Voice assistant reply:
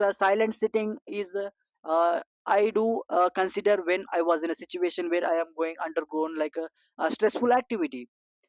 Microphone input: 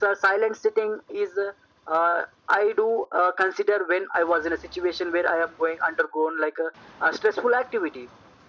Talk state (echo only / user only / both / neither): echo only